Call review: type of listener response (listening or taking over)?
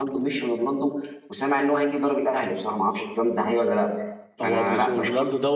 taking over